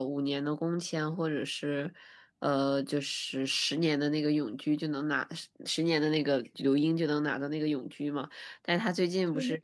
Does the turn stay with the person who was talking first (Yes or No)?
Yes